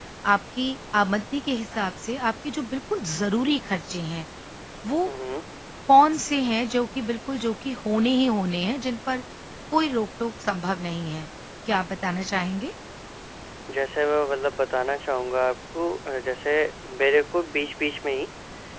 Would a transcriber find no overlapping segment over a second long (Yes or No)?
Yes